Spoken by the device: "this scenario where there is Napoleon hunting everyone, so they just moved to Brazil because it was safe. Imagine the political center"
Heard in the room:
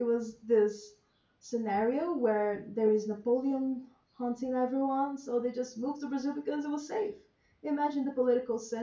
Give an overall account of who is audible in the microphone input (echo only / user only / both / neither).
echo only